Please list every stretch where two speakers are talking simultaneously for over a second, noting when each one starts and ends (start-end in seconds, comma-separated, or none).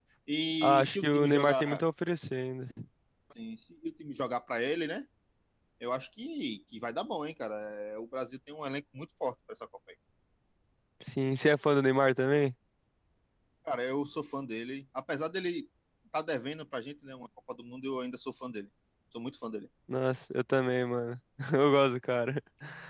0.6-1.8